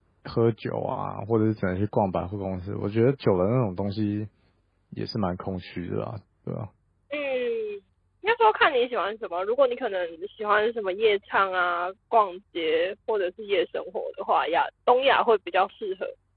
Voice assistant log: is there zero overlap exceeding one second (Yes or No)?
Yes